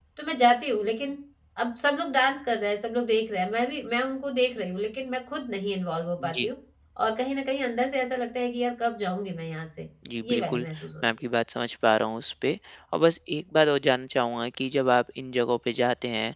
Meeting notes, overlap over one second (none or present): none